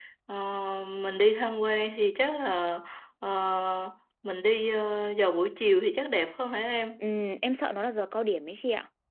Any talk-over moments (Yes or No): No